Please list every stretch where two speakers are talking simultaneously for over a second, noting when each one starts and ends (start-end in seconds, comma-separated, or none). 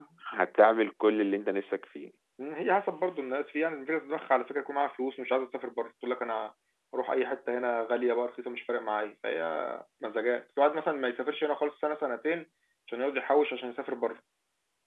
none